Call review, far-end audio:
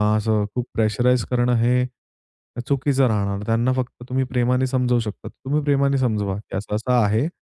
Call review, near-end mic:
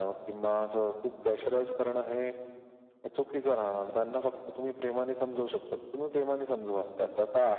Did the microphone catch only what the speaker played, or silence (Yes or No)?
Yes